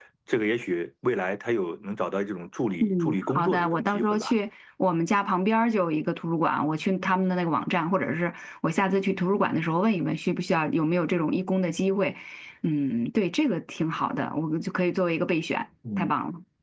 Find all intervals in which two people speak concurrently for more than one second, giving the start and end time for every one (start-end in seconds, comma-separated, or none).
2.8-4.4